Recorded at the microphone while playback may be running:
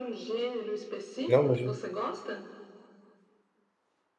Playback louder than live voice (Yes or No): No